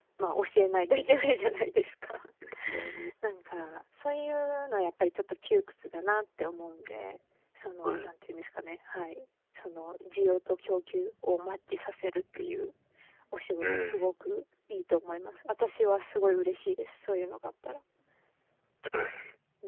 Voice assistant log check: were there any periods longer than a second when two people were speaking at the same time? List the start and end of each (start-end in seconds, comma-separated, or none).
none